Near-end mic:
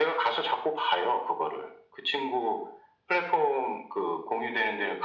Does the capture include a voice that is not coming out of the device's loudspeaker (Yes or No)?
No